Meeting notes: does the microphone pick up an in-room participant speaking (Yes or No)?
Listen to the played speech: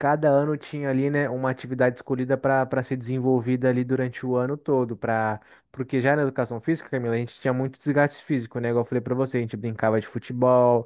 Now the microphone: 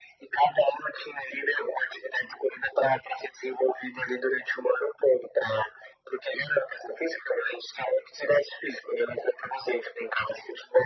No